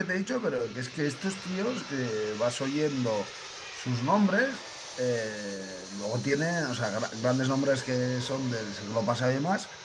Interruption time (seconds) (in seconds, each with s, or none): none